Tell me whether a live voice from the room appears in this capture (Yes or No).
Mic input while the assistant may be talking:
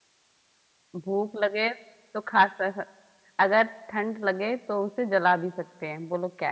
Yes